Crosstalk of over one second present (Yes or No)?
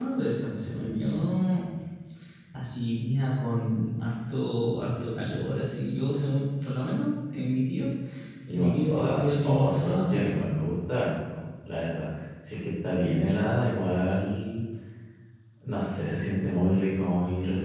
Yes